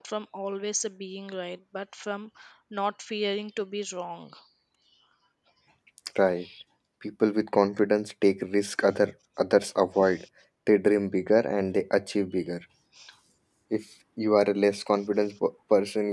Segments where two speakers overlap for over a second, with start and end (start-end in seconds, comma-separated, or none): none